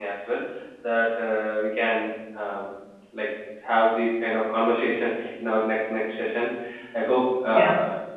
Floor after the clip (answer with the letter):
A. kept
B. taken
A